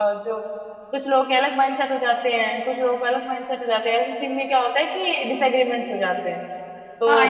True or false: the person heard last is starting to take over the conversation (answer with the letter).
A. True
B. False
A